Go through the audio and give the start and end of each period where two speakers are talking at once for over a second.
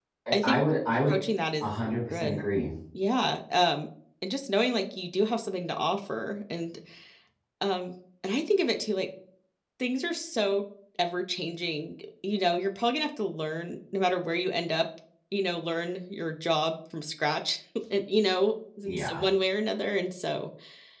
none

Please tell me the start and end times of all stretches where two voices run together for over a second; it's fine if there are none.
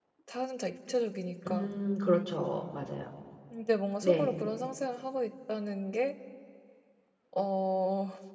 none

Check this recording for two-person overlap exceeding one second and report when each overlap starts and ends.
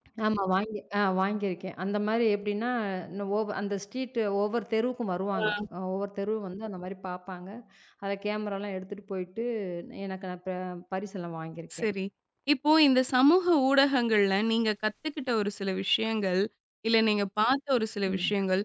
none

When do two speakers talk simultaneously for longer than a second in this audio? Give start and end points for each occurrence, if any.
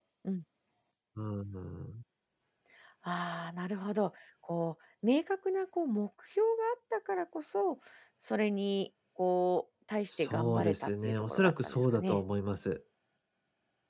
10.1-12.2

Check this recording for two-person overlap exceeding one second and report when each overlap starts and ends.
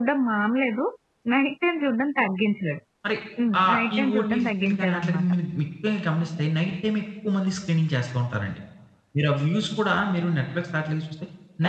3.6-5.3

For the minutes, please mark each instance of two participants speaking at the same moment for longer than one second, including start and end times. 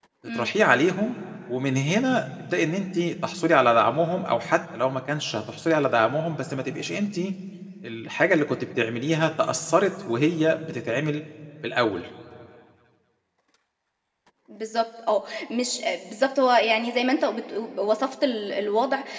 none

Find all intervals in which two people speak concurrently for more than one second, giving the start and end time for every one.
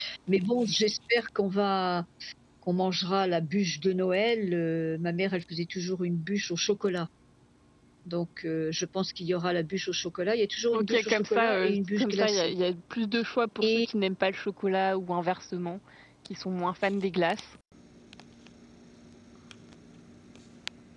10.7-12.5

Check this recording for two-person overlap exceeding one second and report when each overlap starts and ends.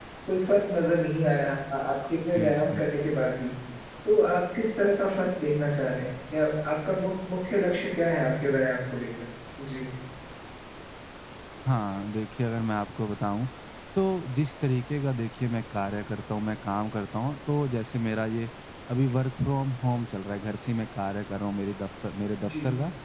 none

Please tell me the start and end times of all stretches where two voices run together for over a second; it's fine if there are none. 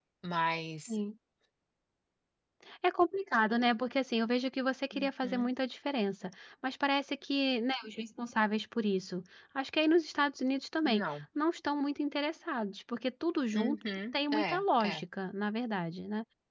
13.5-15.0

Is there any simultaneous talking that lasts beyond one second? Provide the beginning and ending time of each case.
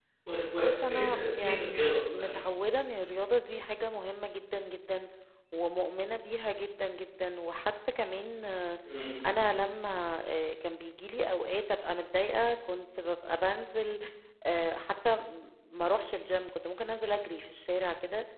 0.6-2.4

